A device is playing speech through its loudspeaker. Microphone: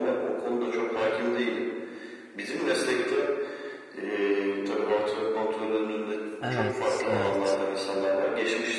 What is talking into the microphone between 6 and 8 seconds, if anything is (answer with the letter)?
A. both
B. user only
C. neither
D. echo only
A